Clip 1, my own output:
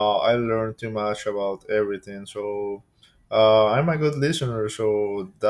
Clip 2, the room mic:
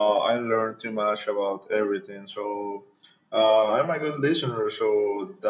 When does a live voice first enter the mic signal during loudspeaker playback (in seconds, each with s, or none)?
none